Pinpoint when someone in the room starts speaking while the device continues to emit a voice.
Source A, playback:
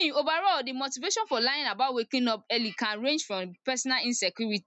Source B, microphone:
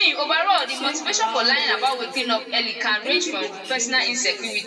0.6 s

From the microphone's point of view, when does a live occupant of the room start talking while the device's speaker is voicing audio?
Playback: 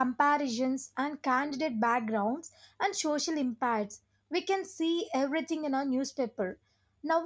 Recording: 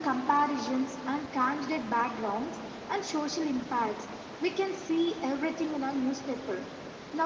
none

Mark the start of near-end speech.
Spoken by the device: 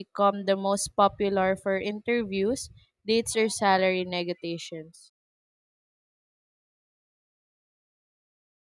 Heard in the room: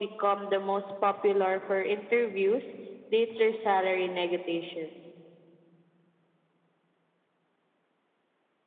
none

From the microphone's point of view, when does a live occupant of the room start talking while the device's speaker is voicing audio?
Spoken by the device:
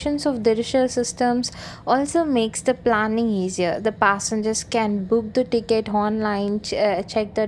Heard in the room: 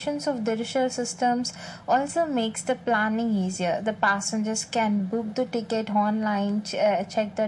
none

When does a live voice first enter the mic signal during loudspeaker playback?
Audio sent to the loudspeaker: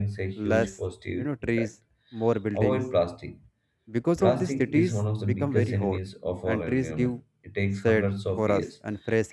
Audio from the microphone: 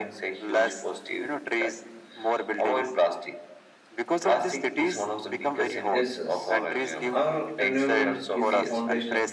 5.9 s

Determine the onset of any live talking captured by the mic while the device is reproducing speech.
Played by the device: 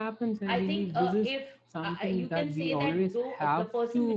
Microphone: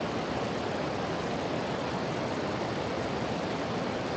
none

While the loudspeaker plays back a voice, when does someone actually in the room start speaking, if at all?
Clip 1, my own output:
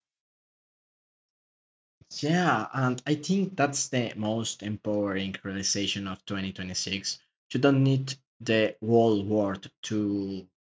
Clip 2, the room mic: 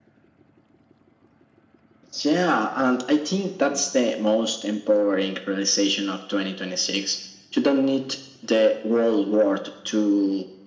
none

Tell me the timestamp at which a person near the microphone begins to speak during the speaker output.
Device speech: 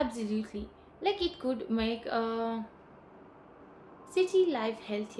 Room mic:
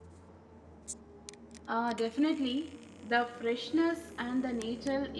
1.7 s

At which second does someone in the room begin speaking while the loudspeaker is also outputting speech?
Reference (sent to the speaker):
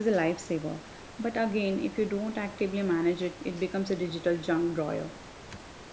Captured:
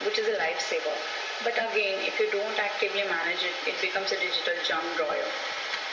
none

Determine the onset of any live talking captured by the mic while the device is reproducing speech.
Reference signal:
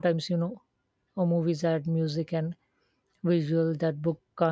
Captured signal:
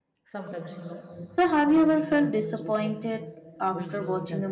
1.3 s

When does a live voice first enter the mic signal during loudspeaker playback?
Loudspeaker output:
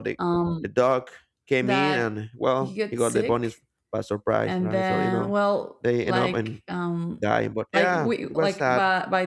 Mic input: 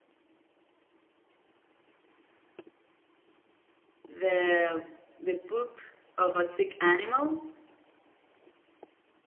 4.1 s

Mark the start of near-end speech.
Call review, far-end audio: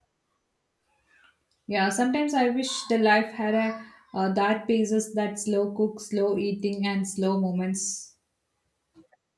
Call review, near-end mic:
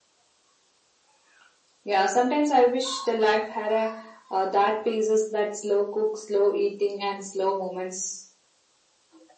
none

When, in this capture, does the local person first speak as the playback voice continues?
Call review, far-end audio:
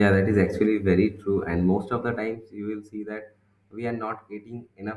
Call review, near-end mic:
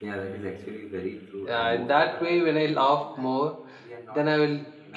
1.4 s

